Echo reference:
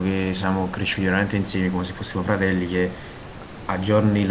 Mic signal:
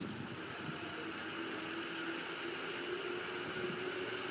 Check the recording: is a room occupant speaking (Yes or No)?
No